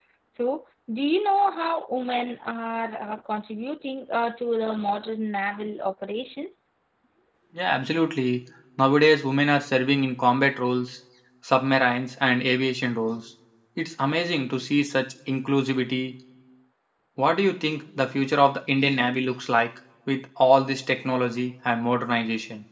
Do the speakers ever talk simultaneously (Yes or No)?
No